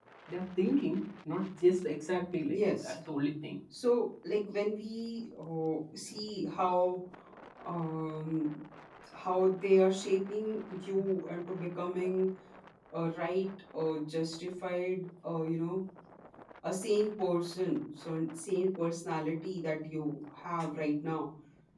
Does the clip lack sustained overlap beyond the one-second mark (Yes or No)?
Yes